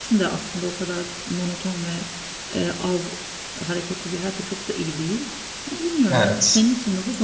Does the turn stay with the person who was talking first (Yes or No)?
Yes